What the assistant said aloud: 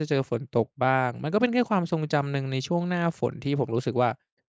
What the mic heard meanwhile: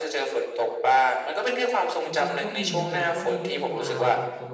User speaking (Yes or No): Yes